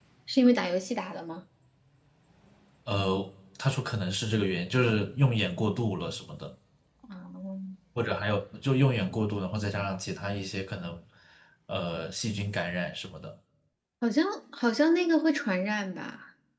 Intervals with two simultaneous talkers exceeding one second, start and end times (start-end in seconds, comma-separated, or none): none